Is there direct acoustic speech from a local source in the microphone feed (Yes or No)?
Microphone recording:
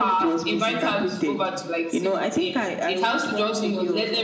No